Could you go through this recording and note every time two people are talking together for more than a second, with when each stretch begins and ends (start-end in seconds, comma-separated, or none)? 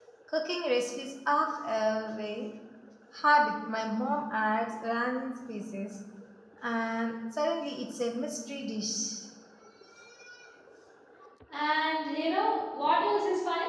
none